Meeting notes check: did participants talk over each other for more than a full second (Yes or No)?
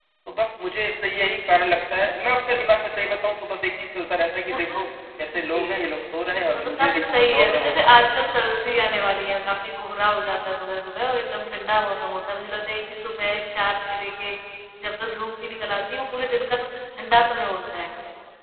Yes